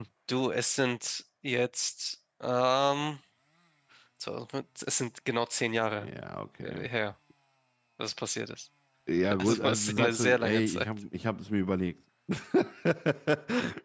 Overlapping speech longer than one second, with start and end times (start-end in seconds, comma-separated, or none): 9.4-10.9